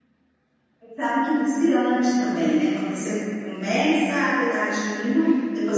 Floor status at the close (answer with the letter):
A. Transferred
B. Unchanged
A